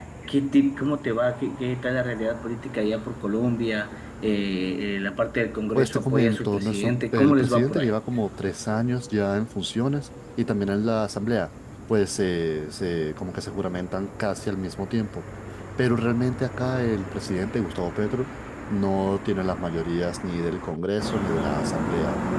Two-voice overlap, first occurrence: 5.8 s

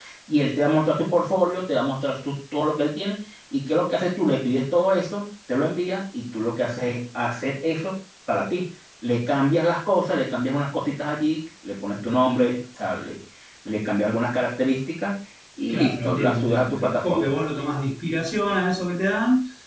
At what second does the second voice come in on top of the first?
15.7 s

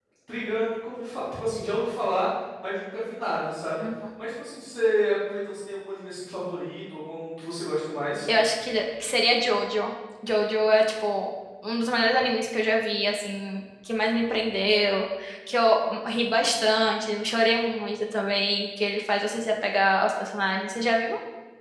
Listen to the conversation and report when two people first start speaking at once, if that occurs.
none

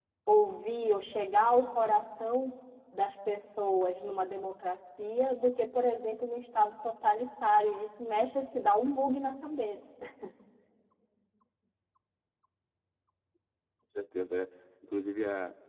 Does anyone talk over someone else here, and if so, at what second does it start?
none

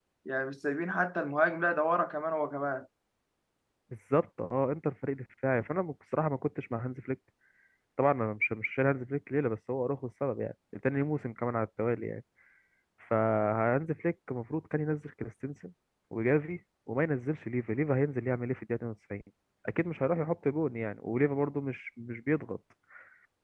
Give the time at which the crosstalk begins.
none

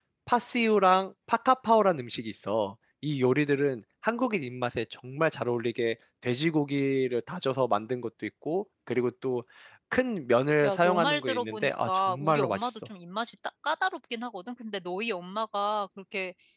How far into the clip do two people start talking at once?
10.6 s

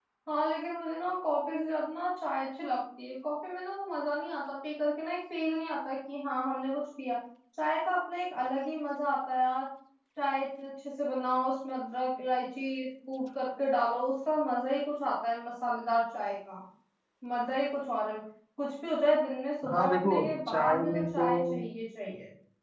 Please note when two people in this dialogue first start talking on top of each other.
19.6 s

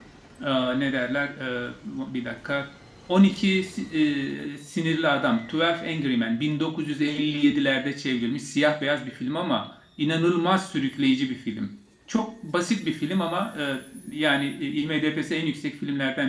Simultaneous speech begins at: none

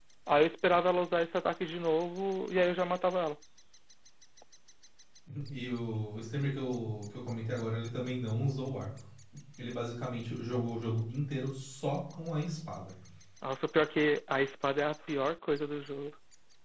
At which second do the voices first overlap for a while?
none

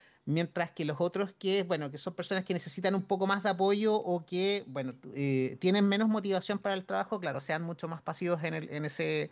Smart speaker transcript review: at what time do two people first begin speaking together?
none

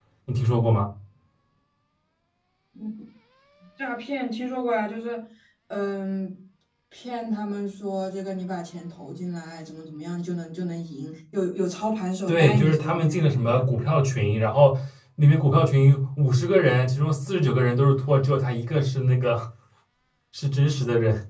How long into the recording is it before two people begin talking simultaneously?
12.3 s

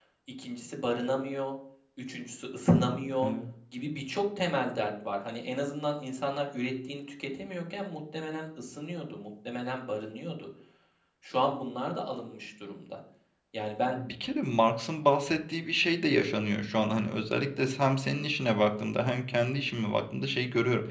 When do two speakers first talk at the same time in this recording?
none

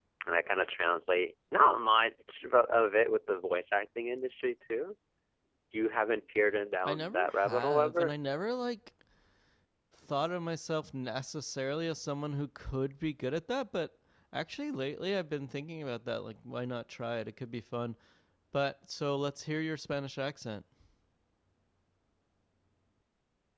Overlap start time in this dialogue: 6.8 s

